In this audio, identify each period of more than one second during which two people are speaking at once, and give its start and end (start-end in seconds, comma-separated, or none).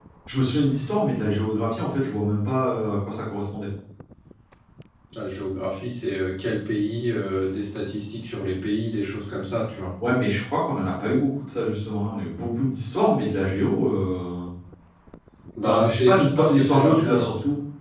15.6-17.3